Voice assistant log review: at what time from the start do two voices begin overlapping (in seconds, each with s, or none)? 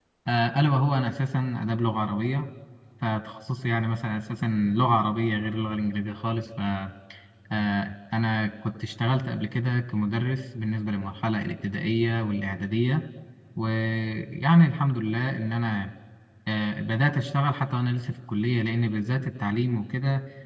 none